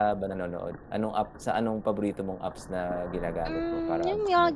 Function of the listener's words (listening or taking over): taking over